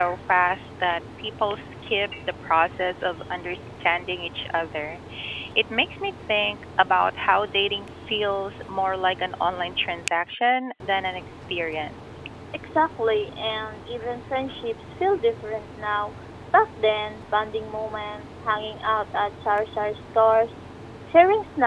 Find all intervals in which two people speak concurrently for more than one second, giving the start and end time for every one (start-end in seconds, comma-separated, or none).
none